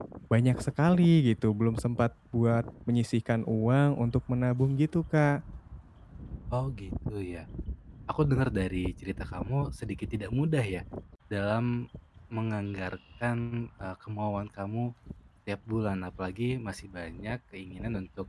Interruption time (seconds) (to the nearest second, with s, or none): none